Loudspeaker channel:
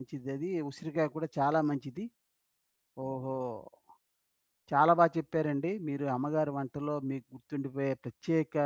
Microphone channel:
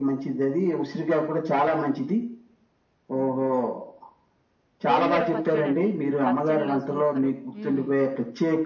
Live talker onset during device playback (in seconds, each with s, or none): 4.9 s